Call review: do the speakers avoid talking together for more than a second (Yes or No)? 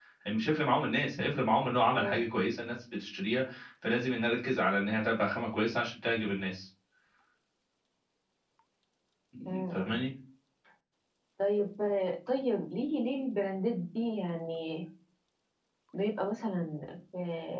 Yes